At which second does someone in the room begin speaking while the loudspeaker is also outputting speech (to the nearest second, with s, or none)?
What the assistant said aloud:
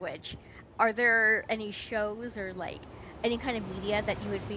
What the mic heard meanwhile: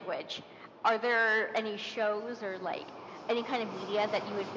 none